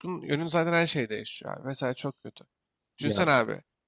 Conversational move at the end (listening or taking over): listening